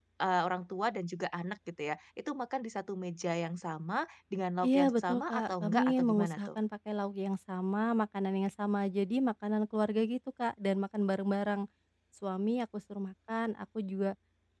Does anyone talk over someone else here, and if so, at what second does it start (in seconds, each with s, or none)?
4.6 s